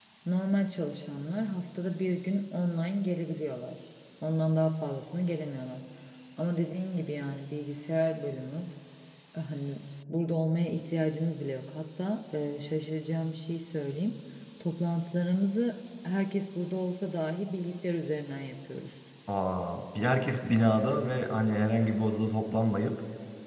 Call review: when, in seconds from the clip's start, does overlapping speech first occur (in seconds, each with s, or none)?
none